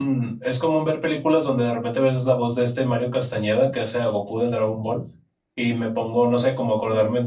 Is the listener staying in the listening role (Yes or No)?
Yes